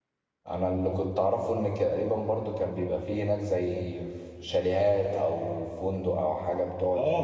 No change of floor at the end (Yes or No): No